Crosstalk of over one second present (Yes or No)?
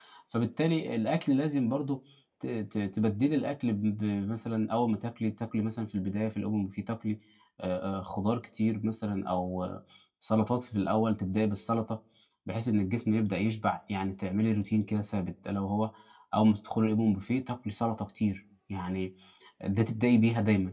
No